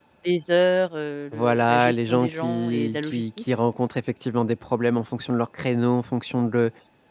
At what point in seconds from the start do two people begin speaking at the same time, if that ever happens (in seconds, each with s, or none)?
1.3 s